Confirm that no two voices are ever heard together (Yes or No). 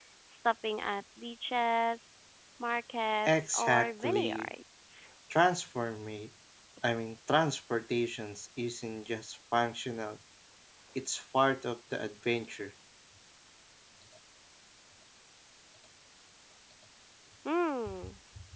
No